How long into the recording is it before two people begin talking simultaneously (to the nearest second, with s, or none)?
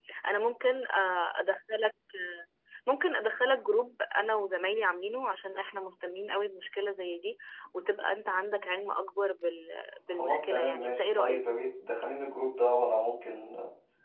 10 s